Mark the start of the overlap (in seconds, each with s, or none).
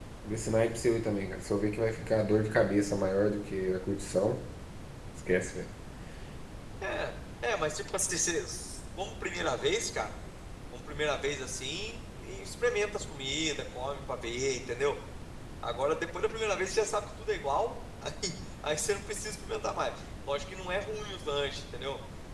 none